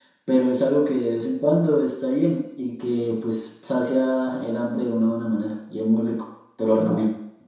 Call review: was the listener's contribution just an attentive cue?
No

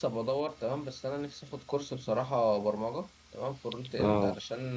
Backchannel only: Yes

